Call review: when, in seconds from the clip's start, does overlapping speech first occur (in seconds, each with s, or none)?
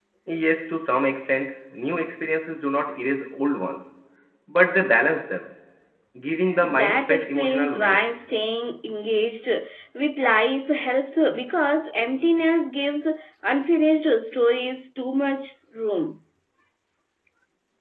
6.8 s